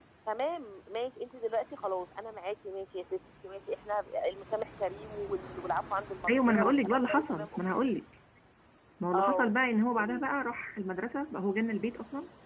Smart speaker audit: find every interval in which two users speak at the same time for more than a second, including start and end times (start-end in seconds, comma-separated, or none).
6.3-7.6